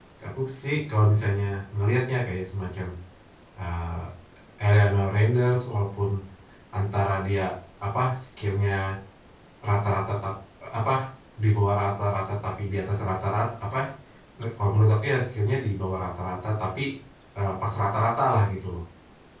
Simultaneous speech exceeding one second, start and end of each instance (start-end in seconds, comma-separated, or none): none